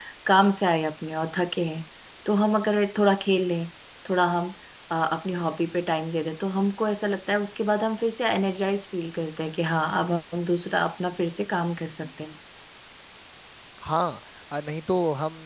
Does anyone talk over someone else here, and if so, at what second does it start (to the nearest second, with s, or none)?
none